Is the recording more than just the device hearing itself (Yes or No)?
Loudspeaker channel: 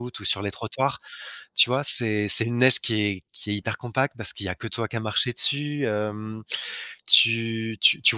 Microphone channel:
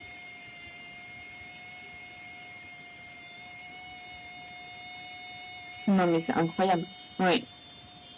Yes